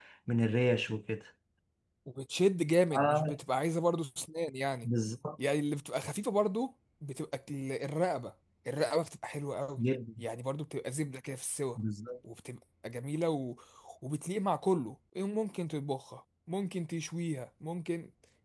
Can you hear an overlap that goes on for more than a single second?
No

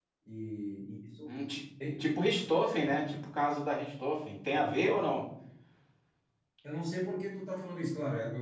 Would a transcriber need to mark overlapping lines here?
No

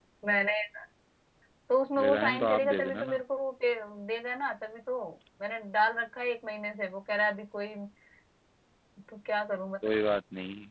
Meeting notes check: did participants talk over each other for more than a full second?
Yes, from 2.0 s

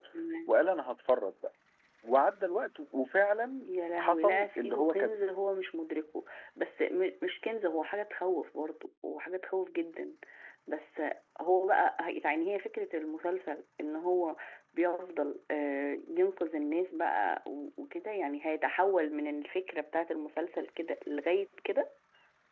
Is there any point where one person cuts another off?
Yes, from 3.6 s

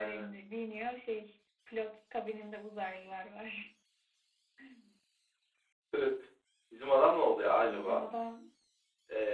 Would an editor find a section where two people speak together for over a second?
No

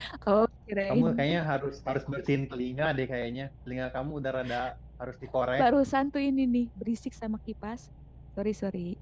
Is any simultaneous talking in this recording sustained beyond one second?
No

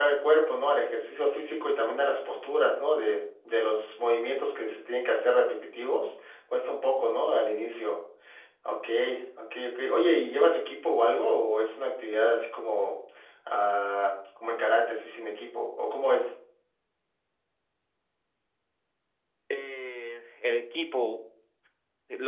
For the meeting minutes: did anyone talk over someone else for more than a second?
No

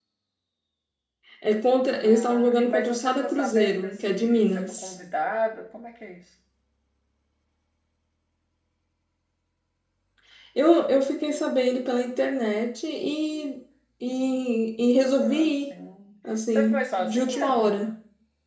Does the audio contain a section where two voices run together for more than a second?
Yes, from 2.0 s

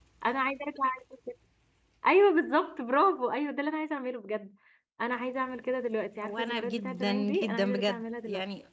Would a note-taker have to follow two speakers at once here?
Yes, from 6.2 s

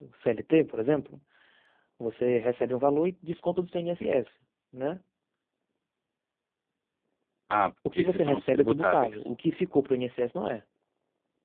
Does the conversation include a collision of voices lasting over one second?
Yes, from 8.0 s

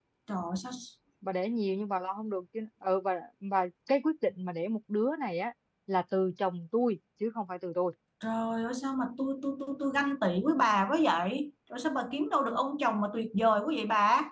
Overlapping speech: No

